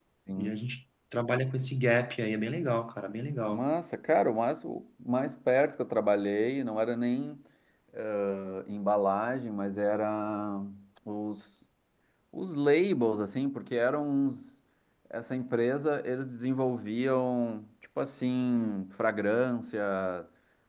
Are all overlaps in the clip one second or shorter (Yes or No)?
Yes